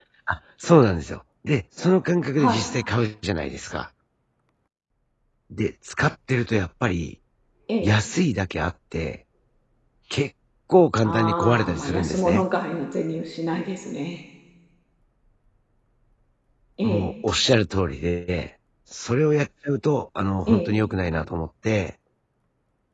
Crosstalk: present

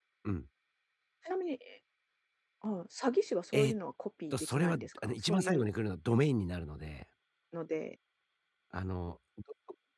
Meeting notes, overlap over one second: present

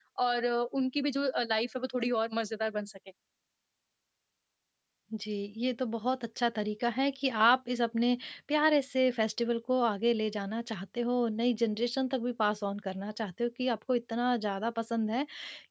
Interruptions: none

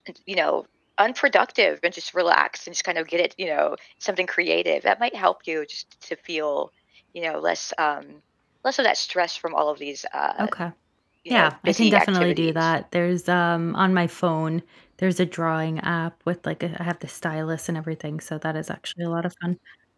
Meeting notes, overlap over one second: present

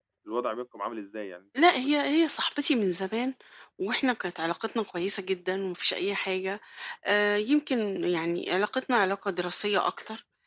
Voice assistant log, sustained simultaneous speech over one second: none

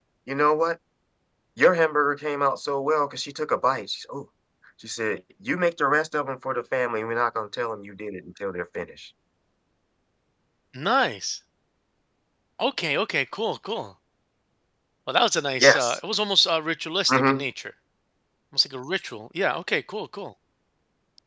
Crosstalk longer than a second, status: none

